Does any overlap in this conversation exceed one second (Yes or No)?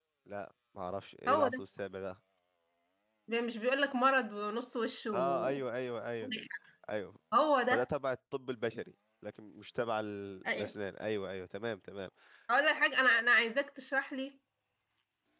No